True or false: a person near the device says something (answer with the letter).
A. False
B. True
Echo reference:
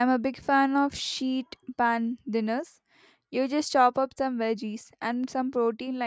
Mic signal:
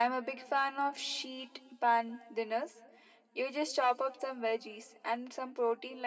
A